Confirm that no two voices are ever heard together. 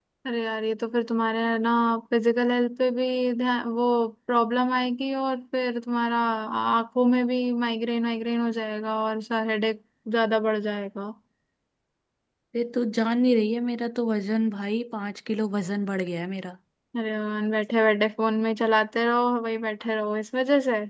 Yes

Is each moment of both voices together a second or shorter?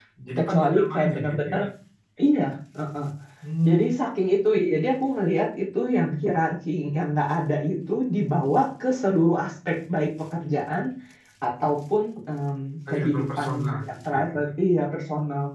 No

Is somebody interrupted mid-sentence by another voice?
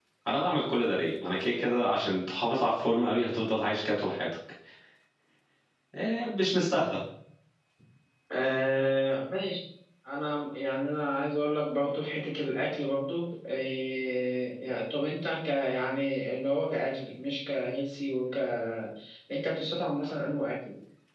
No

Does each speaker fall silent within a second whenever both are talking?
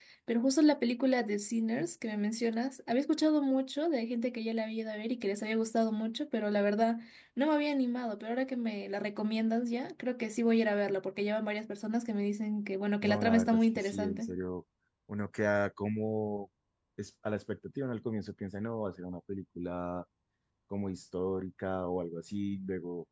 No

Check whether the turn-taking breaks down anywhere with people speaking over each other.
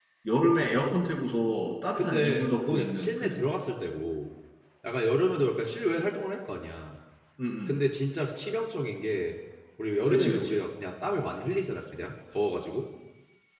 Yes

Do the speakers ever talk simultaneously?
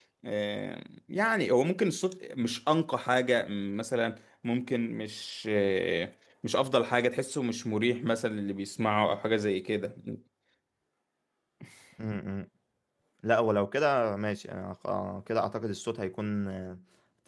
No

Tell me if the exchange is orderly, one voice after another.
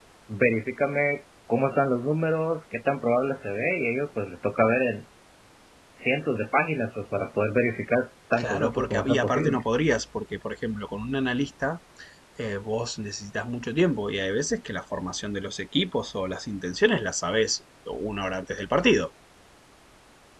No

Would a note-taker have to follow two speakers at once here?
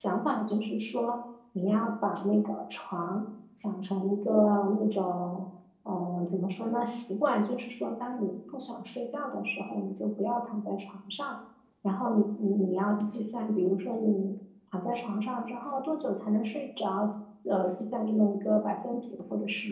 No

